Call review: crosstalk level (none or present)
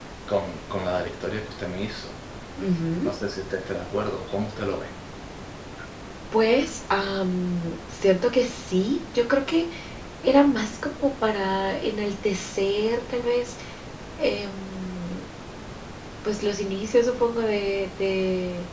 none